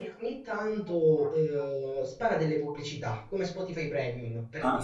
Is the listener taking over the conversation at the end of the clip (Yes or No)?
Yes